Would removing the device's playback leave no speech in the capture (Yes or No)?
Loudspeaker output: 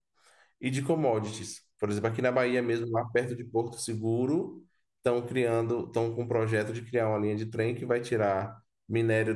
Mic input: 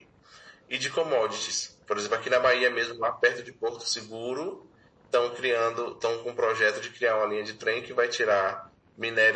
Yes